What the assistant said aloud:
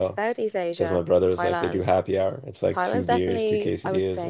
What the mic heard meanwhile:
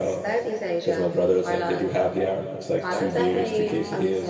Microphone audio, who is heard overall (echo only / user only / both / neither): both